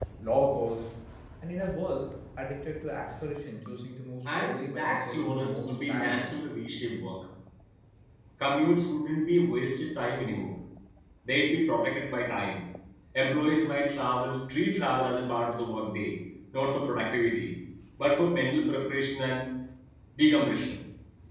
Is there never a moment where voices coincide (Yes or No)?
No